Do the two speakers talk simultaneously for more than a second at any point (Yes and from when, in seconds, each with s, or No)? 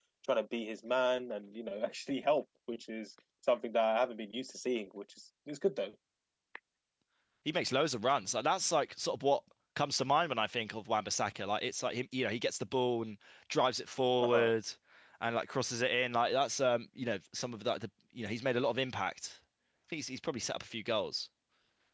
No